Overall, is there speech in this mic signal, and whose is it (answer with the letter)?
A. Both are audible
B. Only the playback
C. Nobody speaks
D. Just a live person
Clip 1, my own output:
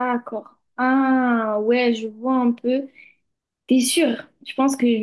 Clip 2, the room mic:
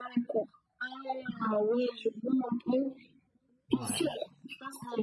A